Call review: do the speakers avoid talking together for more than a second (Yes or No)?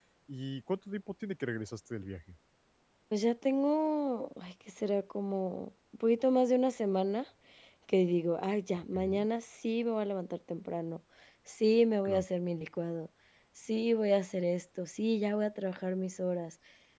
Yes